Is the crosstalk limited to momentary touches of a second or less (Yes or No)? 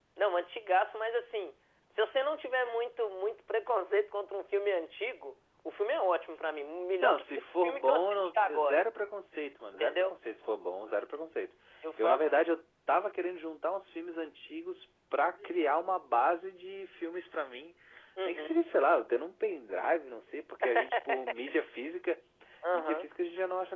No